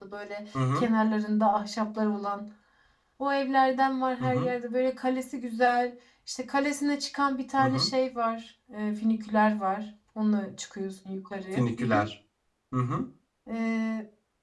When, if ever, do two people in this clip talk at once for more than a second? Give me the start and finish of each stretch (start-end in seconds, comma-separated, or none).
none